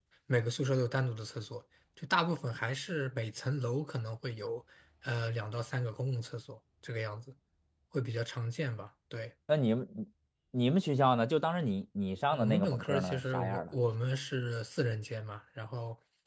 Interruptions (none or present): present